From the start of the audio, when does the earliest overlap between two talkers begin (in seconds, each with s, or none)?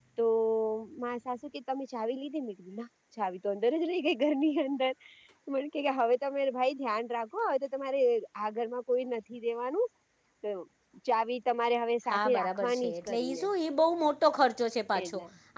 12.1 s